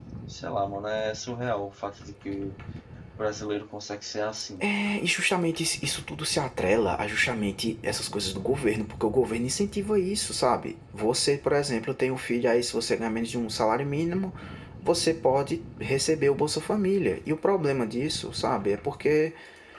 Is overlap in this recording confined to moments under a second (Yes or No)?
Yes